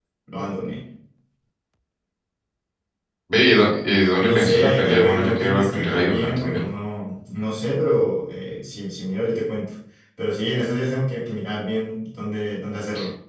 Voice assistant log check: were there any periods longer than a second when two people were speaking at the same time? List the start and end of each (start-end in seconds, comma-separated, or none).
4.2-6.7